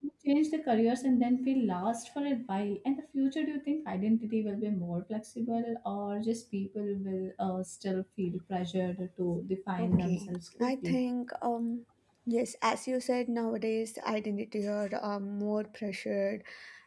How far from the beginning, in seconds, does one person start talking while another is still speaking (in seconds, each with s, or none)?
9.8 s